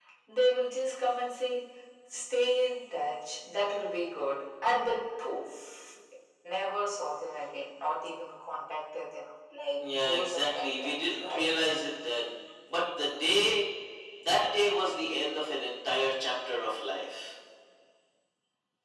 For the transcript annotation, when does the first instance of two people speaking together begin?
10 s

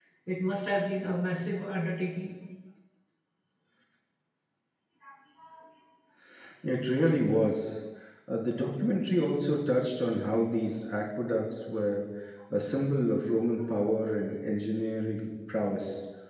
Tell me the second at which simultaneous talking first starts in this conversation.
none

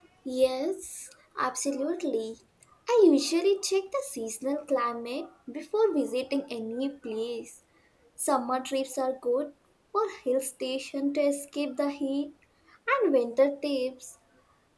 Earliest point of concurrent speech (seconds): none

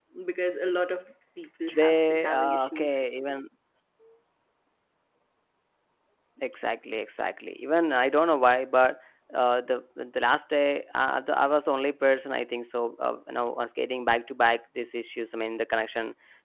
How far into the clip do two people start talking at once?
2 s

